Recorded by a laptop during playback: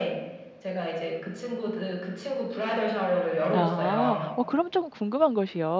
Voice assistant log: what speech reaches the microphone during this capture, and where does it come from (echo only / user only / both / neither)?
both